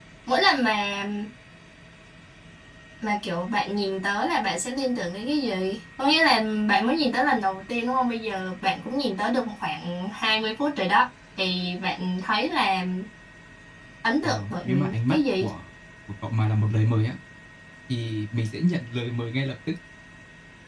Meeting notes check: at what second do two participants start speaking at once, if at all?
14.2 s

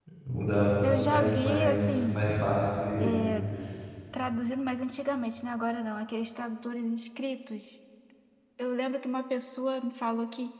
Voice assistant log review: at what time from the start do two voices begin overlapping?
0.8 s

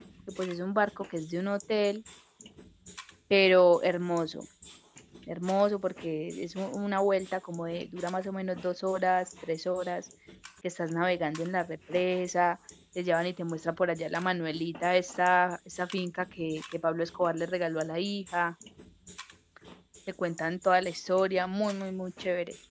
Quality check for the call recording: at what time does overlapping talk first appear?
none

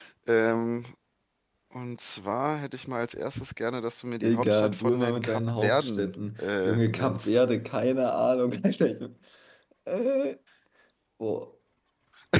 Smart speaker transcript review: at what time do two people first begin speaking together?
4.2 s

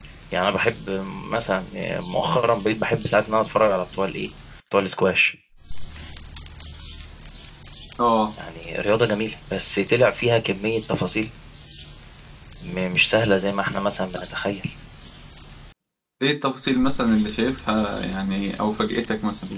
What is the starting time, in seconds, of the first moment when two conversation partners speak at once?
none

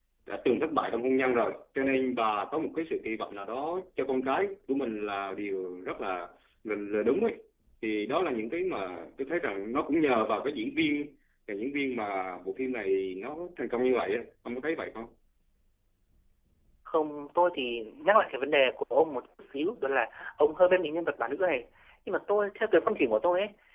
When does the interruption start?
none

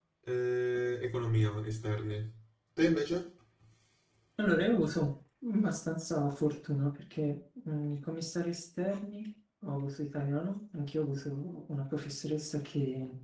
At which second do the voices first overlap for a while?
none

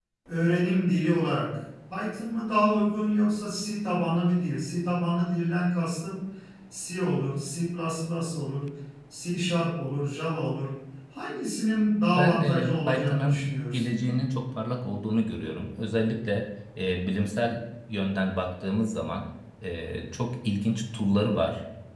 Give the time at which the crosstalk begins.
12.2 s

